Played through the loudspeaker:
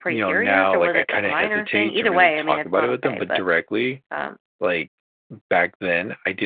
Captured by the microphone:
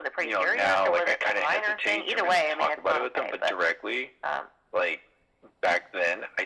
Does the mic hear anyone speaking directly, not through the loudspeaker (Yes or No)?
No